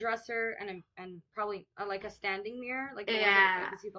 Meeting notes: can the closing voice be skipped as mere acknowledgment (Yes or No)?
No